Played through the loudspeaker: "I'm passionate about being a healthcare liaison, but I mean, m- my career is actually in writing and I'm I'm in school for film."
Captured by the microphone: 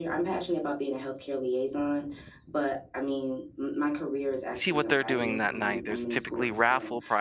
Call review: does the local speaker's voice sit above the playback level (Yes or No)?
Yes